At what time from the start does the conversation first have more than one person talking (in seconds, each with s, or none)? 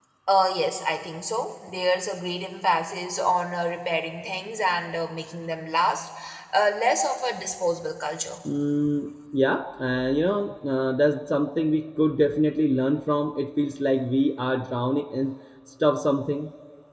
none